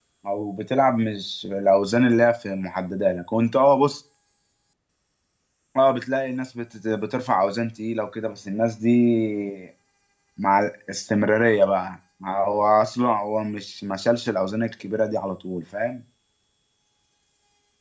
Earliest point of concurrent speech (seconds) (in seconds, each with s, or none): none